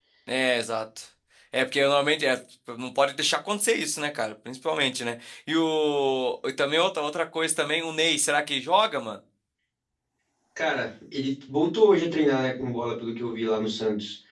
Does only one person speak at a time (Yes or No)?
Yes